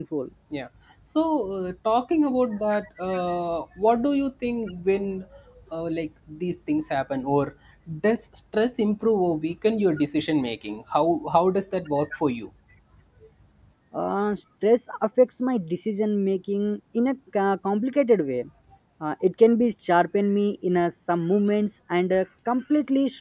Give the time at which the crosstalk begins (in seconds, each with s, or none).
none